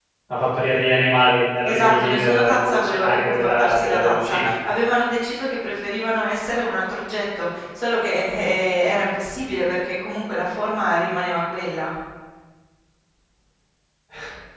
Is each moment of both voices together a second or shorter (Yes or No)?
No